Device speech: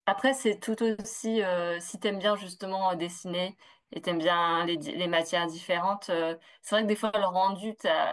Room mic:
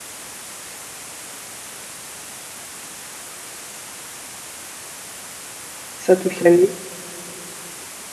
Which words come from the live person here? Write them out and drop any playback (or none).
Ça toute l'année.